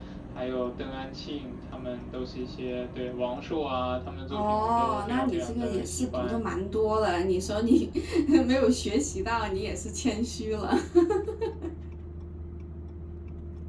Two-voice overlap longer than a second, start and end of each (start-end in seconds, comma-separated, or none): 4.3-6.4